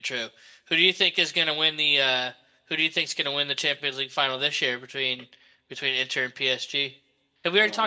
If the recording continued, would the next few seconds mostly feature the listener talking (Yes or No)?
Yes